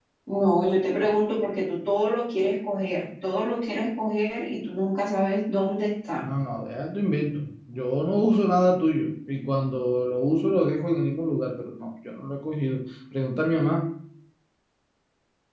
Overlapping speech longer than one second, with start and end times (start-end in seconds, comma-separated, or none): none